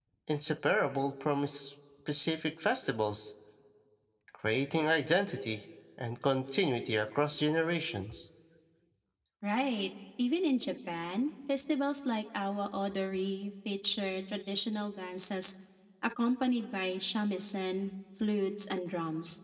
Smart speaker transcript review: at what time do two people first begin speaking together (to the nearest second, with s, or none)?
none